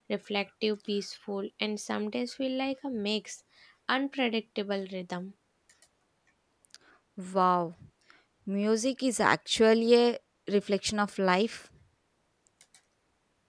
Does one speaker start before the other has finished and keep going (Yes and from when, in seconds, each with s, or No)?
No